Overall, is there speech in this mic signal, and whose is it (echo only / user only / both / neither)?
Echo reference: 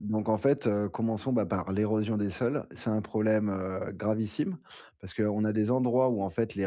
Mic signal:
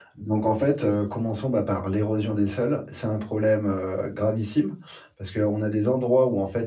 echo only